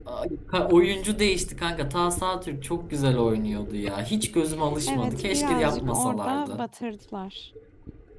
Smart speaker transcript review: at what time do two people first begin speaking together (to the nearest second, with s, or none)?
5 s